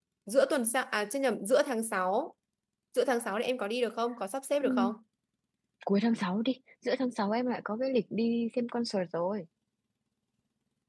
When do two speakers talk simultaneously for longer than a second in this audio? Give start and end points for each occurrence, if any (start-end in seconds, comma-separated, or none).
none